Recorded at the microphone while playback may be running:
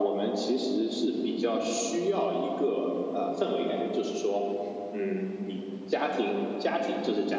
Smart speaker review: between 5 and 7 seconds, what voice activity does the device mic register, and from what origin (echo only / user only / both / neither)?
echo only